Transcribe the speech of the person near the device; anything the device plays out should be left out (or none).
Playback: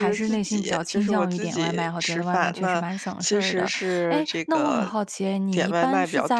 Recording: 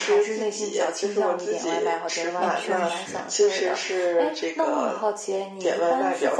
那确实，